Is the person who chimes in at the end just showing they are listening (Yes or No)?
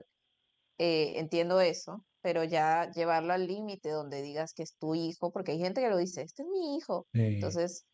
Yes